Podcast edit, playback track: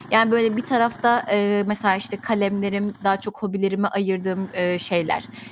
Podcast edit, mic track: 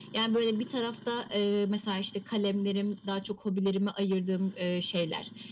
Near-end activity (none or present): none